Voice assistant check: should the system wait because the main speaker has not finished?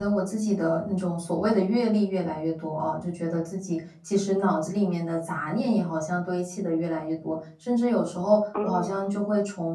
Yes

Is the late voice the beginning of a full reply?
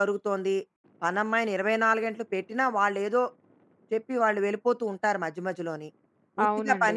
No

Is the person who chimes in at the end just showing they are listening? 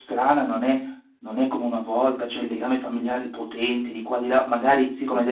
Yes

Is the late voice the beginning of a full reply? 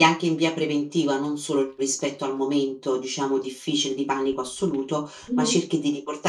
No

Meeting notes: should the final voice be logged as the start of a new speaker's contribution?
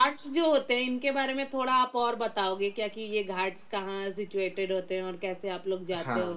Yes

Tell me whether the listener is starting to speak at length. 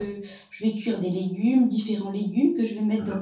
No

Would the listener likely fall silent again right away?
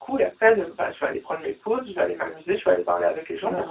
No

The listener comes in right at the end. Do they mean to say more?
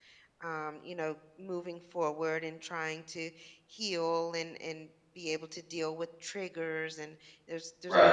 No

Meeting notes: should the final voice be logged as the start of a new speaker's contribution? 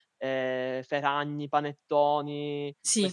No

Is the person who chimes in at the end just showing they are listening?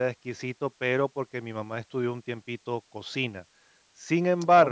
Yes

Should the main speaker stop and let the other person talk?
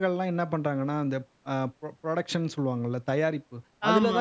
No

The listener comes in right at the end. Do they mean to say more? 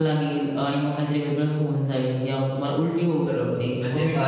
Yes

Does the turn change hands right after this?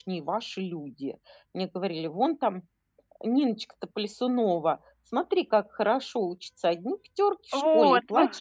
No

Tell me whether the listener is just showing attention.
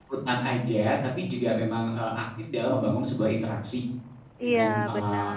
No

